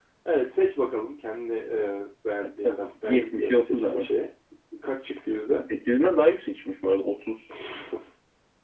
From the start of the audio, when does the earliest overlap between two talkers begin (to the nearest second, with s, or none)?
2 s